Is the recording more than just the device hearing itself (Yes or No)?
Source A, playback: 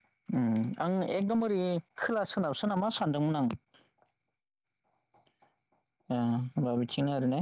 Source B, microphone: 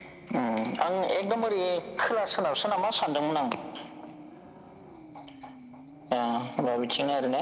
No